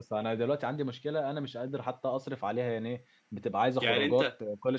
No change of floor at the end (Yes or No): Yes